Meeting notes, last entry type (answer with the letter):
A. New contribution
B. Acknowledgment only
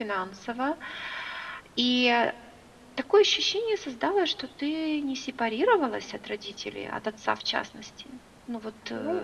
A